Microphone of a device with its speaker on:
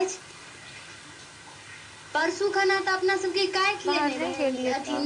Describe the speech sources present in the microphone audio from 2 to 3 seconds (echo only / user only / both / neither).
echo only